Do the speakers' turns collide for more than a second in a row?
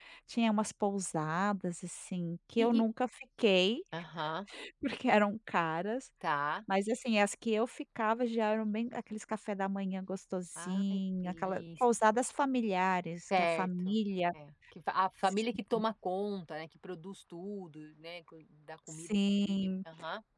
Yes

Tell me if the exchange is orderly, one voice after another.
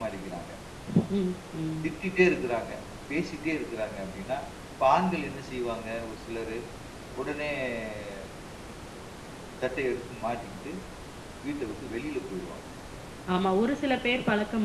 Yes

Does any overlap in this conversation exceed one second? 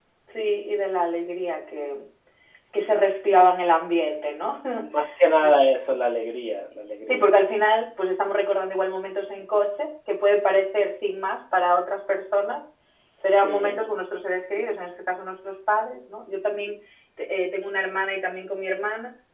No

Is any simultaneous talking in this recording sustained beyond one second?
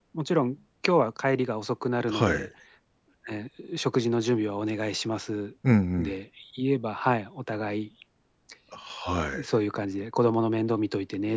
No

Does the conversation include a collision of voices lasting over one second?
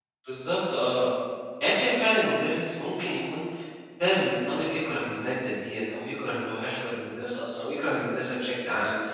No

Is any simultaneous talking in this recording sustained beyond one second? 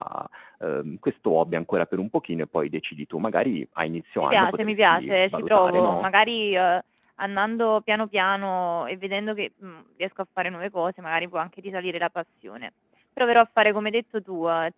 Yes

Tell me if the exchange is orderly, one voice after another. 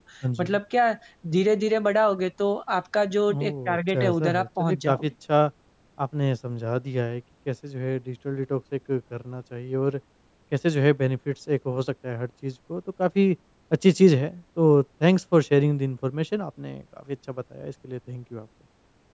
No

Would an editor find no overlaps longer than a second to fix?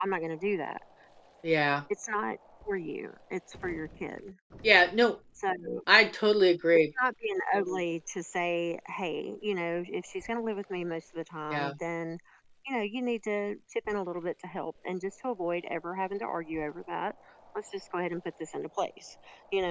Yes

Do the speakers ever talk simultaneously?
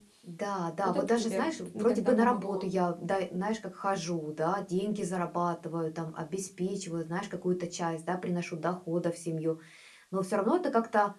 Yes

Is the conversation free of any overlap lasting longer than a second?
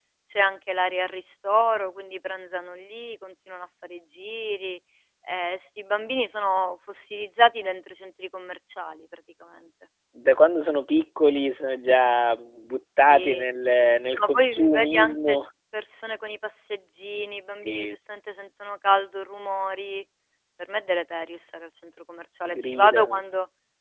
No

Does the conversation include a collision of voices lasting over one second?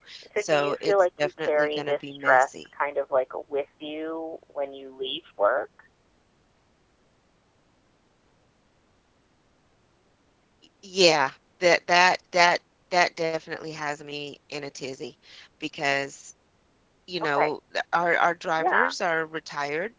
Yes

